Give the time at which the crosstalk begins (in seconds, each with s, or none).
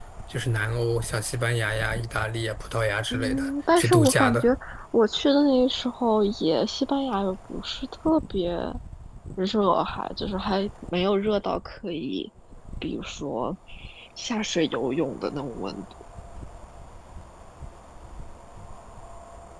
3.1 s